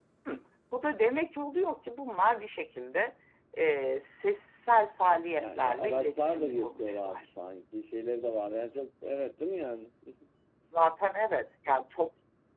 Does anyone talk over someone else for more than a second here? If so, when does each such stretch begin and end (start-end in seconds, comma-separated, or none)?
5.4-7.2